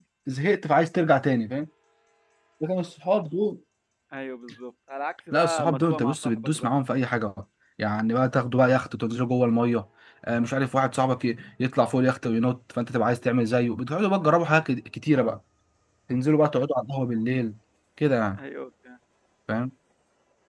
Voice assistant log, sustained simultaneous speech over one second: present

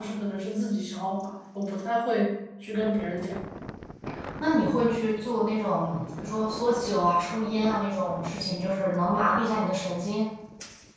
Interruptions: none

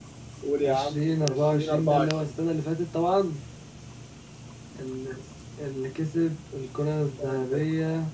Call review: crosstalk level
present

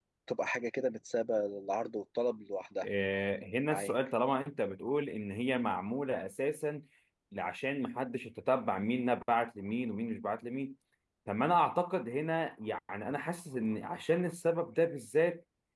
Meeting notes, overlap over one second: none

